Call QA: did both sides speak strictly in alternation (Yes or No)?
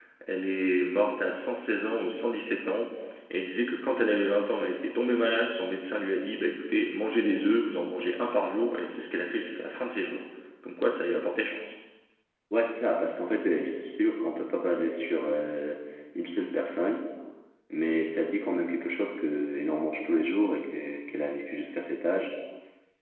Yes